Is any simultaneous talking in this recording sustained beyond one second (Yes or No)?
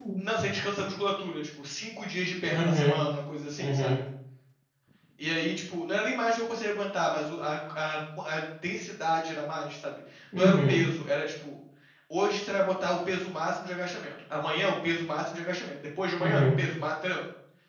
No